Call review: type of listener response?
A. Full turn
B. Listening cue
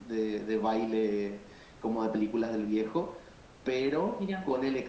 B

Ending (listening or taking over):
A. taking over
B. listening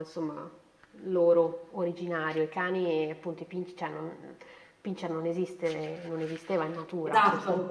B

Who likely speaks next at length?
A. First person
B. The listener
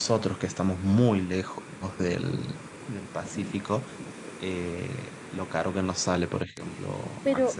B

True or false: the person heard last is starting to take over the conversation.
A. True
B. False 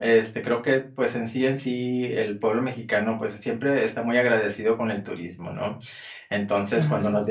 B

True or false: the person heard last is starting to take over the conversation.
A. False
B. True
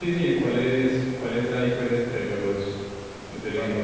B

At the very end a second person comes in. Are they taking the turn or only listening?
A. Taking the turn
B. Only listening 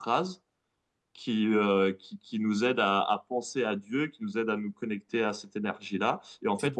B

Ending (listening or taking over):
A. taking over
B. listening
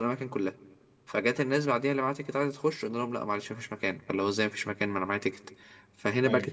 B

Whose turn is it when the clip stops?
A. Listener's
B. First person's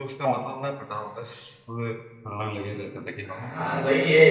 A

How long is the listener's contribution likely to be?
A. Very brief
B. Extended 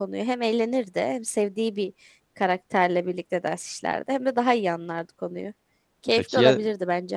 B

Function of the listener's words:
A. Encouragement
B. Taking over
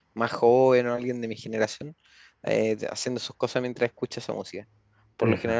A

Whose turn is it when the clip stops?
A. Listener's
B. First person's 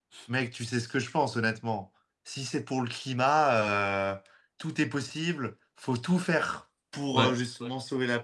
B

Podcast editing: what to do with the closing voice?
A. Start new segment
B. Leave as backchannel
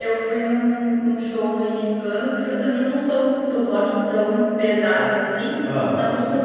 B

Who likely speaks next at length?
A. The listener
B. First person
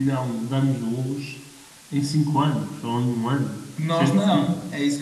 A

